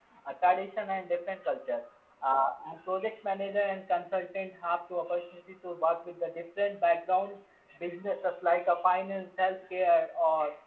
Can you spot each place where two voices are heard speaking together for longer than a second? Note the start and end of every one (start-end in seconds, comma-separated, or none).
none